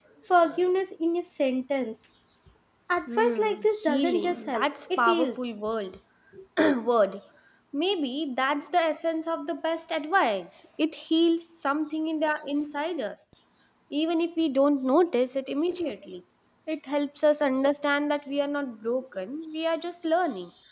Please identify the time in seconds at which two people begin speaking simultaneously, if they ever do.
3.2 s

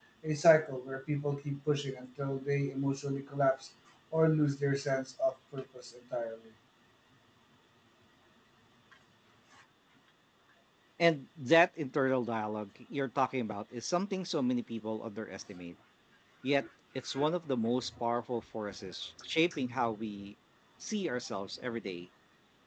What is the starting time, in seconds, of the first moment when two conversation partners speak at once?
none

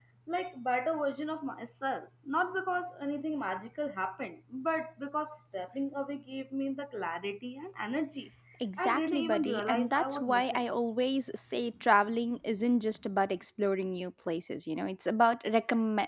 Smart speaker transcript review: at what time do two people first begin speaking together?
8.8 s

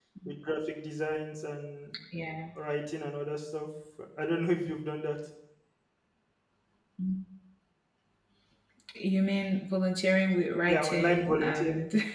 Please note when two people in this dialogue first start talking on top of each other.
10.7 s

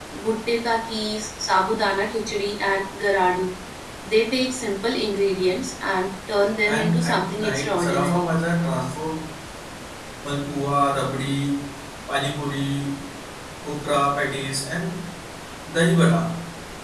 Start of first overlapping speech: 6.6 s

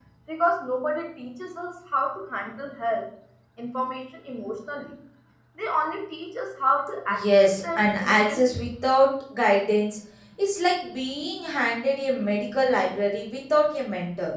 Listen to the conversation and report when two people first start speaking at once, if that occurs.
7.1 s

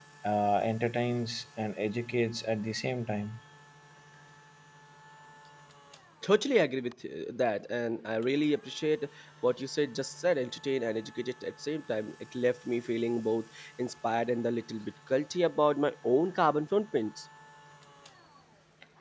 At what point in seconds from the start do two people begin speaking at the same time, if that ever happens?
none

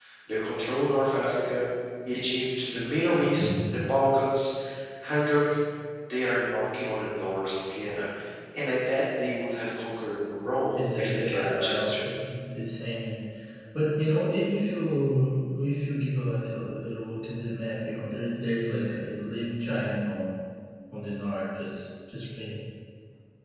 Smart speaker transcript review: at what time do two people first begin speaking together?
10.7 s

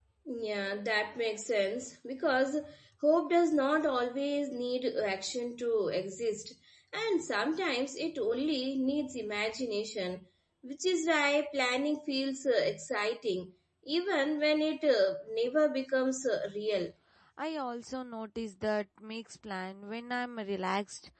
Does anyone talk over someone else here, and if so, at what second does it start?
none

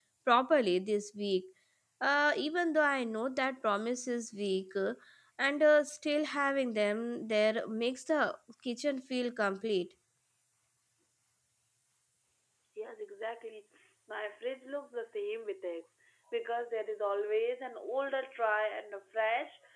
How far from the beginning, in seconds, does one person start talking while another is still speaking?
none

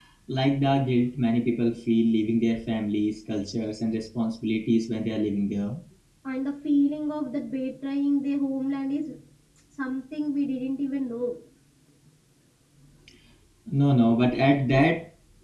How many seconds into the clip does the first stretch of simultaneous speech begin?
none

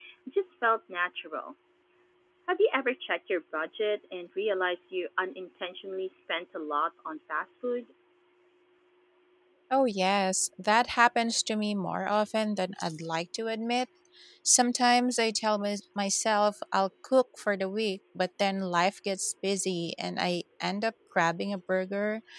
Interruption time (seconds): none

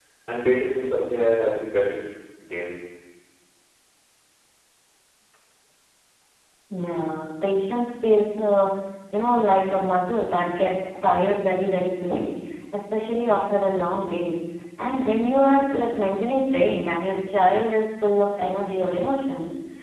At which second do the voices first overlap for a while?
none

